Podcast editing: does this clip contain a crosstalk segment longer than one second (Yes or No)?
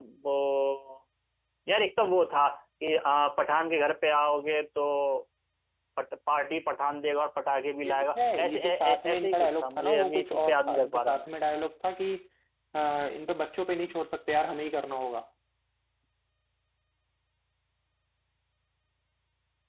Yes